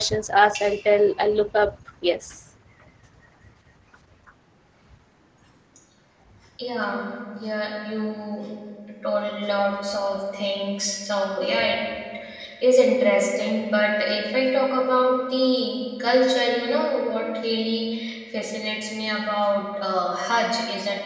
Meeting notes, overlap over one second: none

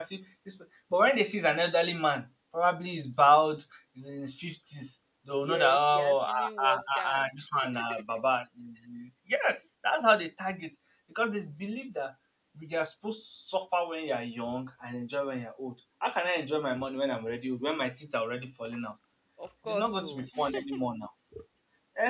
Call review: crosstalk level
present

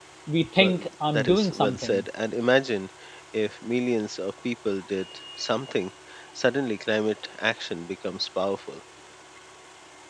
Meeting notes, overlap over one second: present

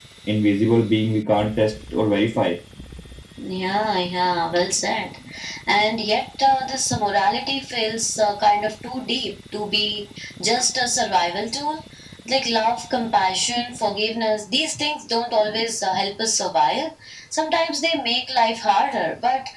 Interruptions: none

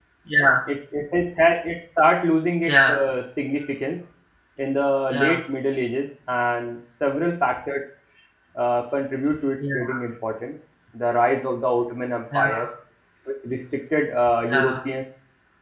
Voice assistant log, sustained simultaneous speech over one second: none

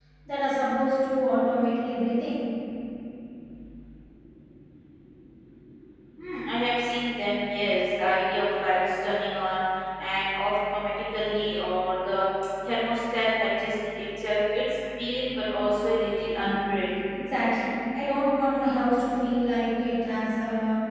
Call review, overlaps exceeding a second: none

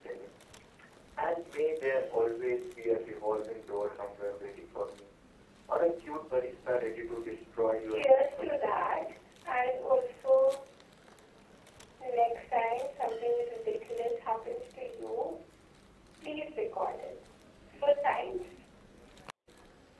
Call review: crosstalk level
present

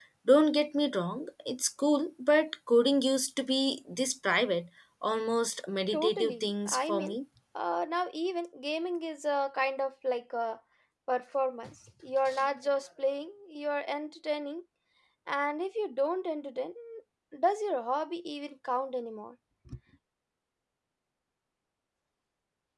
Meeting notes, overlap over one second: present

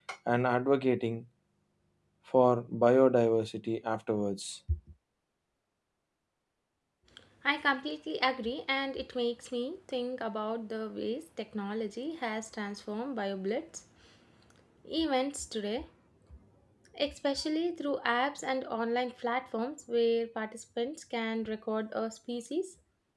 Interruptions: none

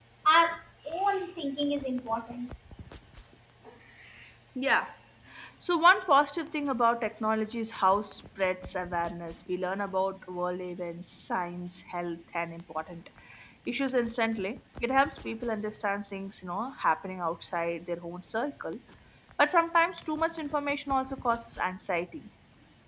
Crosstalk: none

